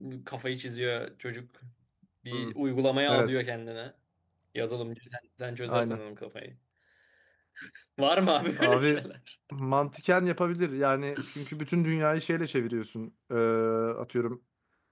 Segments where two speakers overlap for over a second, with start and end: none

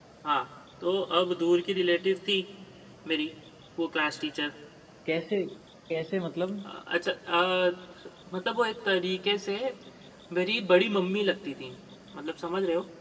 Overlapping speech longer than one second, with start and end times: none

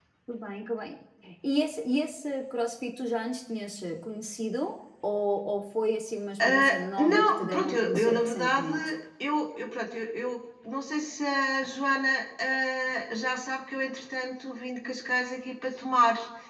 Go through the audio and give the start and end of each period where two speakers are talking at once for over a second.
6.5-8.7

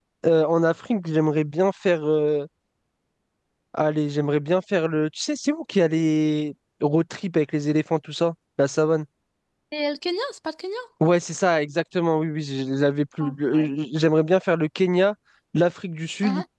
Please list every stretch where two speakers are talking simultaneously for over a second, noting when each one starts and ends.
none

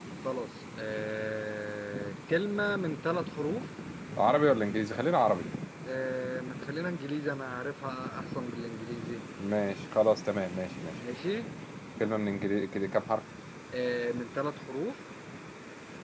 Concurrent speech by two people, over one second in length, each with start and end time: none

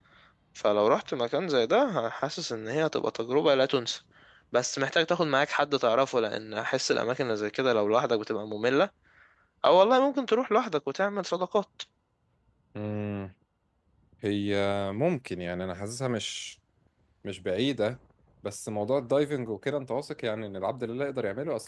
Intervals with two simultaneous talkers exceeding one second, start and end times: none

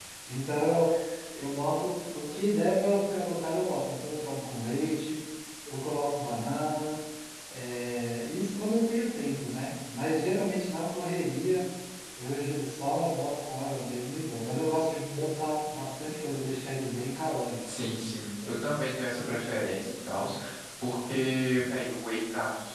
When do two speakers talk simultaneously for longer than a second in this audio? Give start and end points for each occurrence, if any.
none

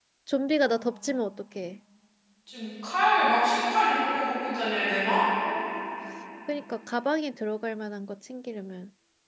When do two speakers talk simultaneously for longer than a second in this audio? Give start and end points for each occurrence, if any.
none

